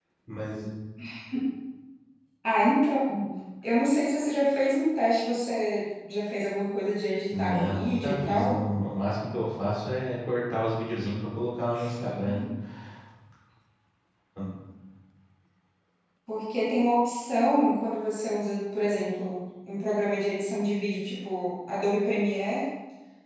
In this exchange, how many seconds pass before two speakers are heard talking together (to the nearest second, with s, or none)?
7 s